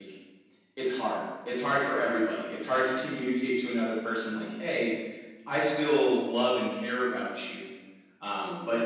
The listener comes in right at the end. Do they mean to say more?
No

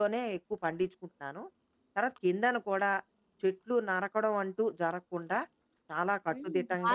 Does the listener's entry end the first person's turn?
Yes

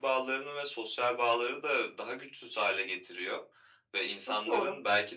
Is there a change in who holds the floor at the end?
No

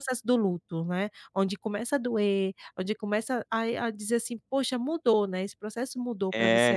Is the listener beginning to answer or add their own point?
Yes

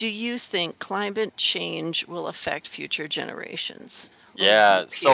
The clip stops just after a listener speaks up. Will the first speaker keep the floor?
No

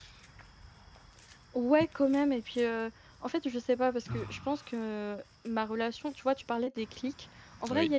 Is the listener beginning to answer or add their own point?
No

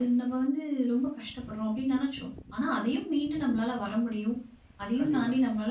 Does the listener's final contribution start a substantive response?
No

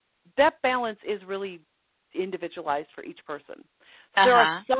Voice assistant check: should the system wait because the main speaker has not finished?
Yes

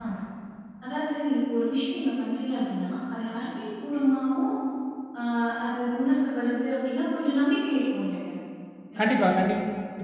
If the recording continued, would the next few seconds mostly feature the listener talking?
Yes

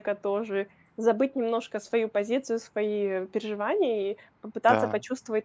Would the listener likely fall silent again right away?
Yes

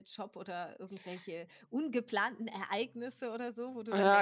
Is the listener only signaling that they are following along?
No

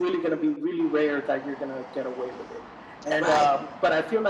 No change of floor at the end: Yes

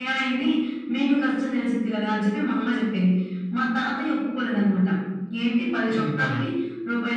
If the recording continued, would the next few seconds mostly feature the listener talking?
No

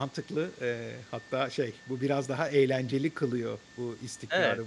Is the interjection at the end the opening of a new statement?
No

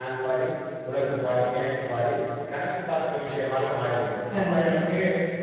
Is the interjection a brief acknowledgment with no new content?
Yes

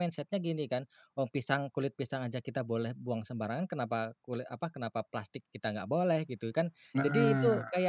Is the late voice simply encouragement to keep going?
Yes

